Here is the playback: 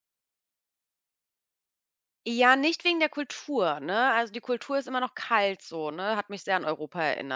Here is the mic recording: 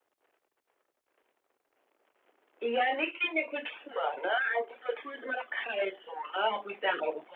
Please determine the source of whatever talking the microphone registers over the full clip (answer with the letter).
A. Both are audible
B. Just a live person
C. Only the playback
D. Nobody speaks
C